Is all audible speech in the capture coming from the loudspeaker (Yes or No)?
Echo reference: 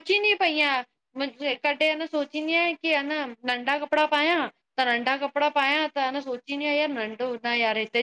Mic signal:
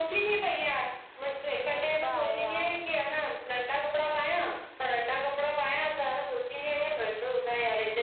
No